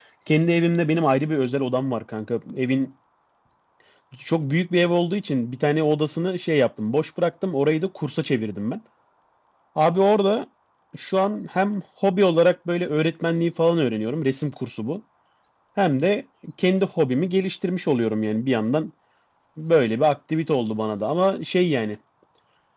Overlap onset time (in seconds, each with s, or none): none